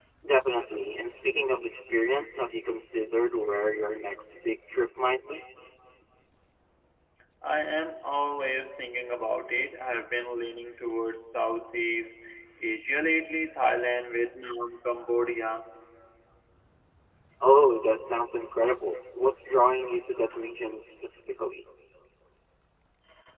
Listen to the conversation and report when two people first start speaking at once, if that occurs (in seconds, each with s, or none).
none